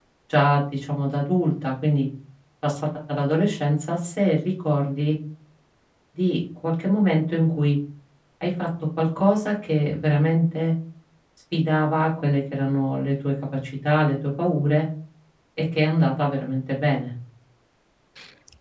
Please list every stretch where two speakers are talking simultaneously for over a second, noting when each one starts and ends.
none

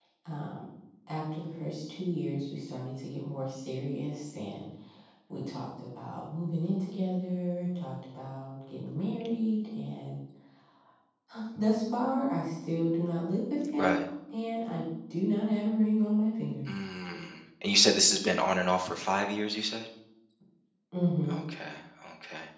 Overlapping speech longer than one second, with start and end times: none

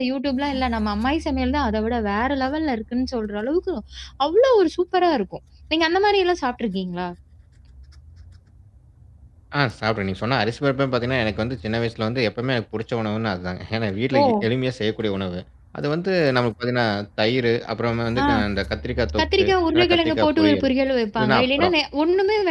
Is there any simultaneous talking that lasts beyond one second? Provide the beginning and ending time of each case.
19.2-20.7

